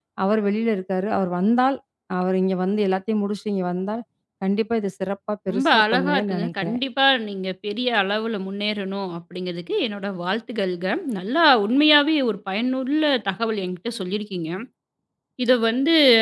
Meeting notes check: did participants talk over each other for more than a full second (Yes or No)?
Yes